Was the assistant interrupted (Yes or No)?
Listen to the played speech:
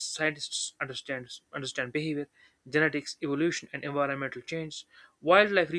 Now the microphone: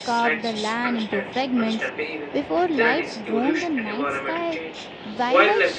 Yes